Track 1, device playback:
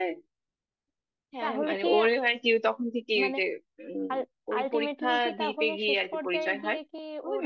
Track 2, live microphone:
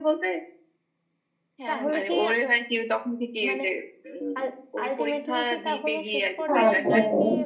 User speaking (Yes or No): Yes